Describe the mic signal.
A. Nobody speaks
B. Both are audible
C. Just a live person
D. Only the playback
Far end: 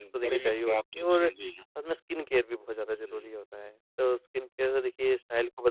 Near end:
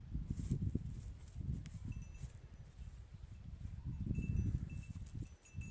A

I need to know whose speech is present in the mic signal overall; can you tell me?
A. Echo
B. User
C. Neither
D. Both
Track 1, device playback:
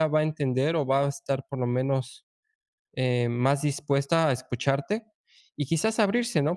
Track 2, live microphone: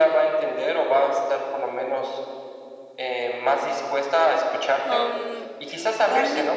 D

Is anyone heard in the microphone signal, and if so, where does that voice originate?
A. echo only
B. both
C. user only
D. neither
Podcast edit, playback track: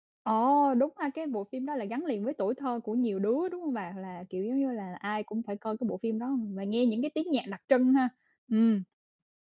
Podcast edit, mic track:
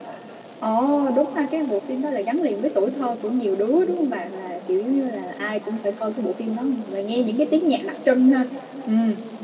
A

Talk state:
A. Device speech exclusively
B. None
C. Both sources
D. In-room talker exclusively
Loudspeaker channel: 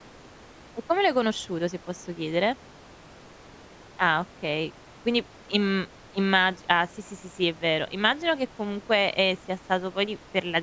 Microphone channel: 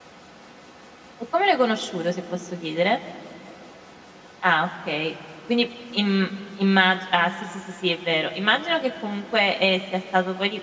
A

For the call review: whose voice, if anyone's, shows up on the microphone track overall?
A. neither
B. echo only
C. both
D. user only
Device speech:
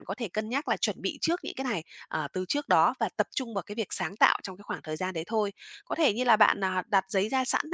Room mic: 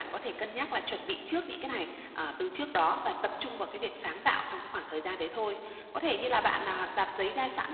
B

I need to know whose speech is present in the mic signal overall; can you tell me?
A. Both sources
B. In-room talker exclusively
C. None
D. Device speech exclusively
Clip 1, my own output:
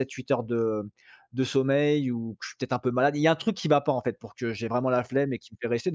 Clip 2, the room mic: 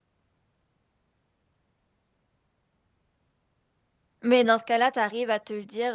B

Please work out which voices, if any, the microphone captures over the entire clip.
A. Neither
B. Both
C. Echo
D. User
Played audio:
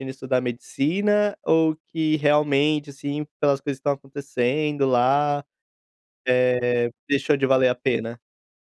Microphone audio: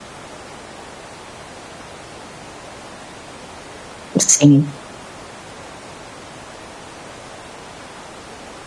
D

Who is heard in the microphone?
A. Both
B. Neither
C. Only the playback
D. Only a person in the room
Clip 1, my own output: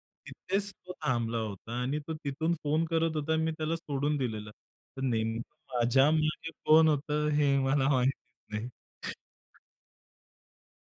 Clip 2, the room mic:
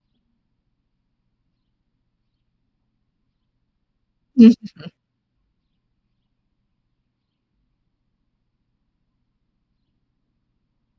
D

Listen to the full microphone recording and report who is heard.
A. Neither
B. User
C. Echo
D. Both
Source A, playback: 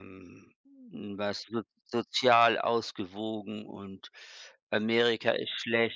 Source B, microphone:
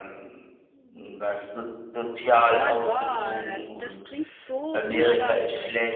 D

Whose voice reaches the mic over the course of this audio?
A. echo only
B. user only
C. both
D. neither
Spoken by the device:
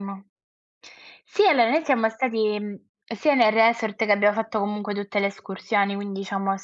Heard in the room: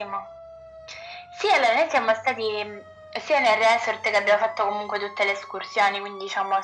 A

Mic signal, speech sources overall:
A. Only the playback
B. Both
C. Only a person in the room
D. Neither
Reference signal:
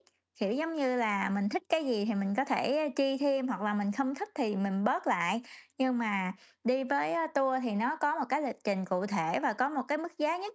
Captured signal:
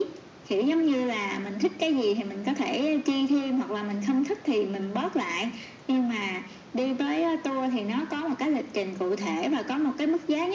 A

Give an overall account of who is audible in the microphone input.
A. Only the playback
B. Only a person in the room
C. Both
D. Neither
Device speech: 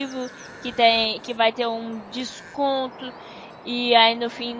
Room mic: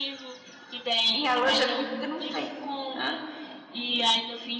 C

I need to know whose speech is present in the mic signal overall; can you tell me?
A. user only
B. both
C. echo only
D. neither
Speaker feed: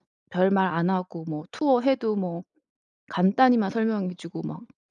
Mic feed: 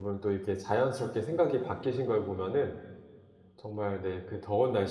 A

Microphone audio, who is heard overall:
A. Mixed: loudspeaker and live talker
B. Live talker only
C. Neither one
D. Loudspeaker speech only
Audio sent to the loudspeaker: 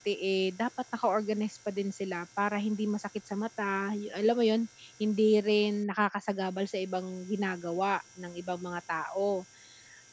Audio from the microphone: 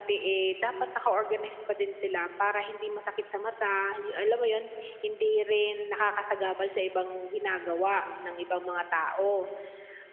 D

